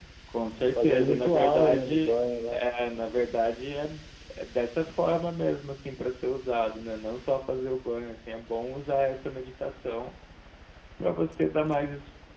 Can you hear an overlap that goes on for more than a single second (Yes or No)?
Yes